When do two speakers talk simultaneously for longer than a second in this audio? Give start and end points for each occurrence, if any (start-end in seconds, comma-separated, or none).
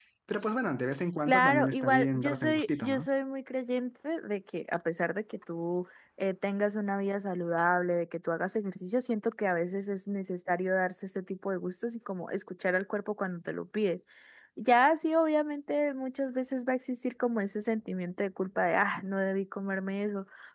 1.2-3.0